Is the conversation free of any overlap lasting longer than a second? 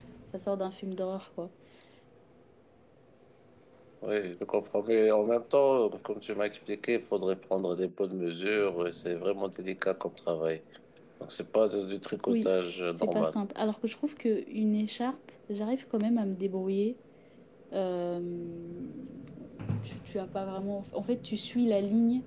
Yes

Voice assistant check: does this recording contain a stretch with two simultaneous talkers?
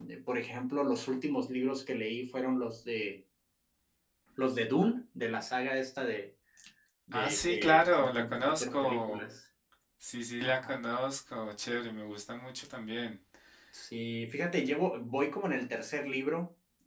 Yes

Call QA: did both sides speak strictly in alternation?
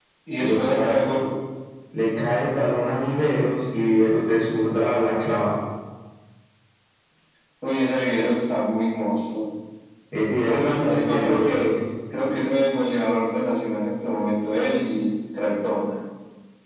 No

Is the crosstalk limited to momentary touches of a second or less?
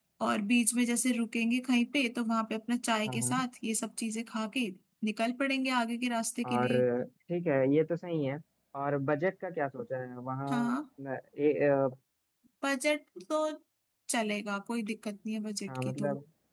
Yes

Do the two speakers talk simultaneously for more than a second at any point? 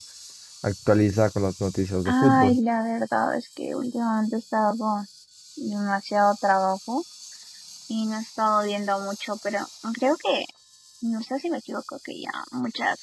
No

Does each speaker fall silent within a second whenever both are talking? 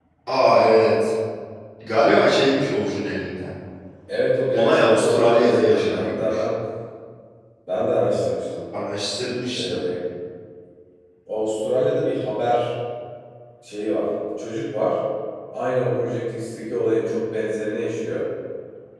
No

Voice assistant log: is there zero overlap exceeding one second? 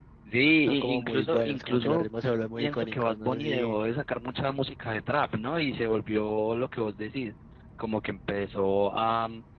No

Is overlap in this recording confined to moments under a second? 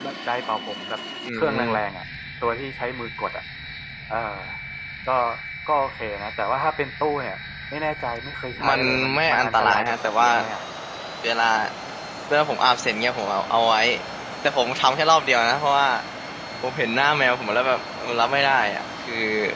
No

